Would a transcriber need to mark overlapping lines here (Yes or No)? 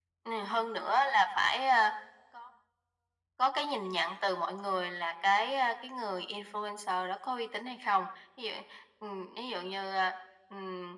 No